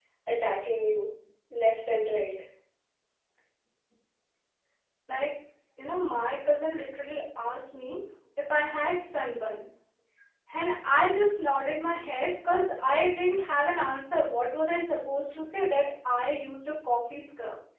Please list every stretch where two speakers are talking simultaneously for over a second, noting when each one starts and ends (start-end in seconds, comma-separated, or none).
none